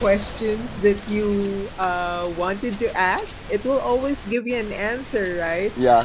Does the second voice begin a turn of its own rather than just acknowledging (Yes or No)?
No